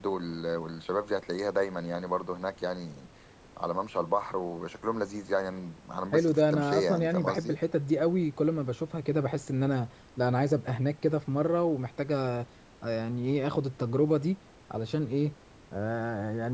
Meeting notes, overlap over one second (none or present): present